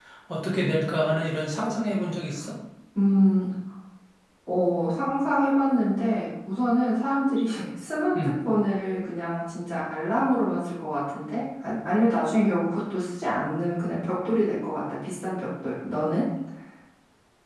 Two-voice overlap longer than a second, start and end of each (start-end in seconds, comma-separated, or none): none